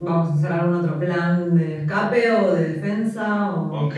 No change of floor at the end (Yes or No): No